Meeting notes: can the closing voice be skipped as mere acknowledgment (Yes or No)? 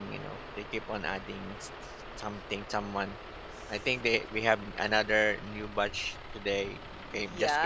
No